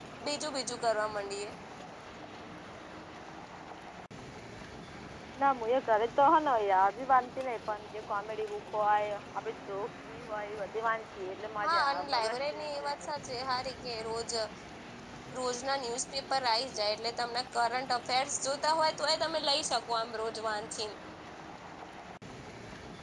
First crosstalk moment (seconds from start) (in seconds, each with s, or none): 11.6 s